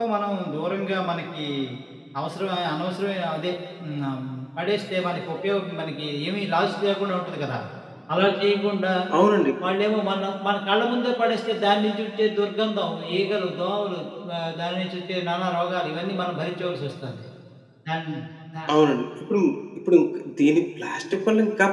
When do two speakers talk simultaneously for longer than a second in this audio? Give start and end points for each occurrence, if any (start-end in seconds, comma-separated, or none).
none